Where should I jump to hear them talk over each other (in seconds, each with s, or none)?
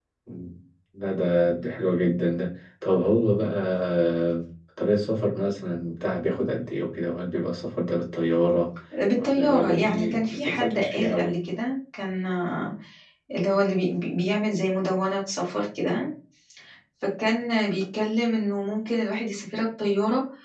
9.2 s